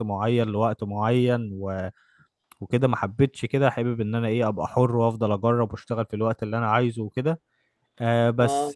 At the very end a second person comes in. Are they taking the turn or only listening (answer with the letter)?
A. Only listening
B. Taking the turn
A